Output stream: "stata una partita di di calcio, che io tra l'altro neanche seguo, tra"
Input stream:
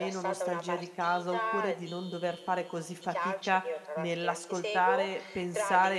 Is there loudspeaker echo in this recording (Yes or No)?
Yes